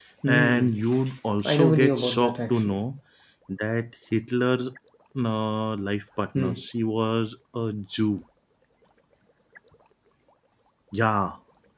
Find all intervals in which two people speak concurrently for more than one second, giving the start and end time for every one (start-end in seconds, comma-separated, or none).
1.4-2.8